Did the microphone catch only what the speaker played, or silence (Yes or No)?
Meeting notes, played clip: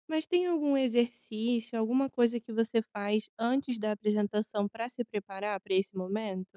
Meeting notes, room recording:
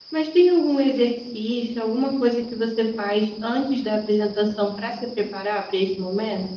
Yes